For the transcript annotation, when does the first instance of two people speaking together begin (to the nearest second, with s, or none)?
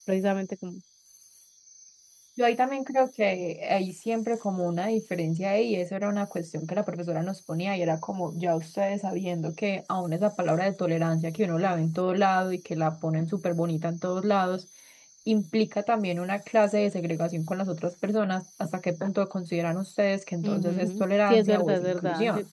20 s